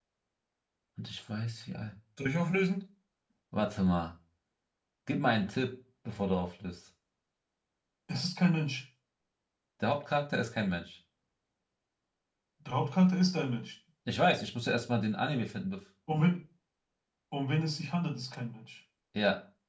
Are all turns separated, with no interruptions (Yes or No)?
Yes